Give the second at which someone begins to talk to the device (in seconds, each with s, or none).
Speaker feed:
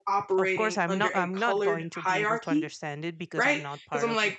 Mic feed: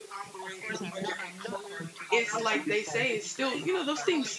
2.1 s